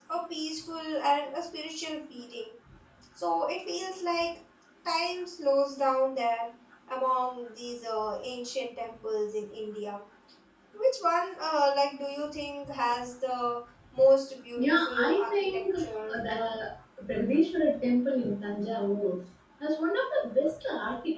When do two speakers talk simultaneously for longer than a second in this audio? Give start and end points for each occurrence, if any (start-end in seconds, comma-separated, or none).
14.6-16.1